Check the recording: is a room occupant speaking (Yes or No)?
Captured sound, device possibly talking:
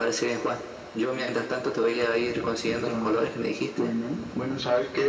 No